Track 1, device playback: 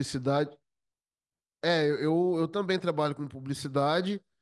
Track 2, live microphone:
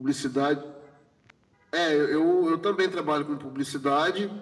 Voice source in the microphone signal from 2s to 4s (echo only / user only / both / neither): echo only